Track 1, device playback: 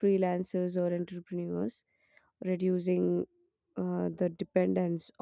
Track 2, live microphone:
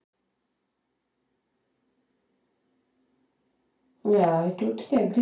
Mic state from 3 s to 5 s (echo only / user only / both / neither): user only